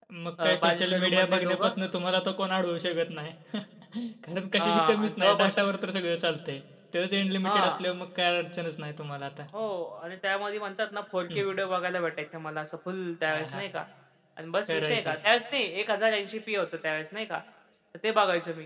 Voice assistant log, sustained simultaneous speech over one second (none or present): present